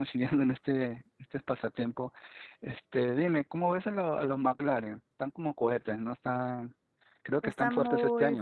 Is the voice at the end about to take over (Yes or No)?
Yes